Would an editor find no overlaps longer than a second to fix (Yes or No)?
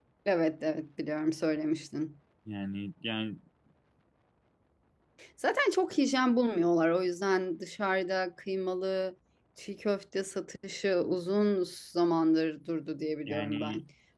Yes